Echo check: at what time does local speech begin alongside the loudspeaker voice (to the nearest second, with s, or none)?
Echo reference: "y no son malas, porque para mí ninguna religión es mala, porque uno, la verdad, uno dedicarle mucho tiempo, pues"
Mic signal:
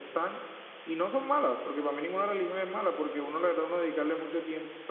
none